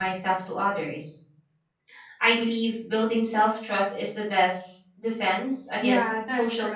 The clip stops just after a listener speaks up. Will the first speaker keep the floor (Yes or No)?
No